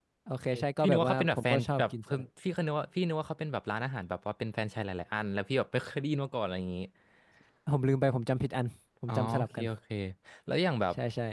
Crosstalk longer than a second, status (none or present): present